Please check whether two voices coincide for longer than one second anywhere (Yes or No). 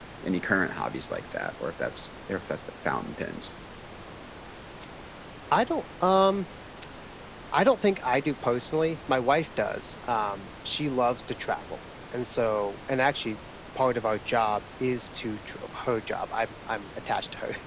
No